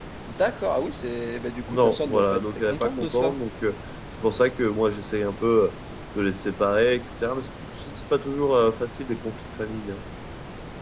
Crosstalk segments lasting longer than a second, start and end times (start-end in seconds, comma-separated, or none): 1.7-3.3